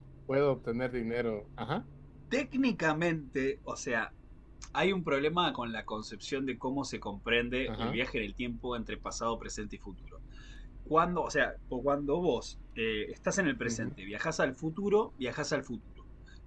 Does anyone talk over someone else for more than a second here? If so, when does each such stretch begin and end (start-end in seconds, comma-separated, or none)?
none